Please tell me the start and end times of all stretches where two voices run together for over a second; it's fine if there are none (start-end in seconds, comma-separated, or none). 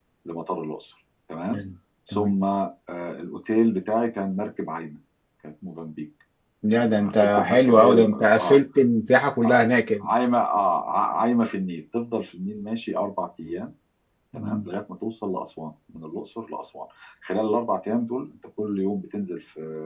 6.7-8.6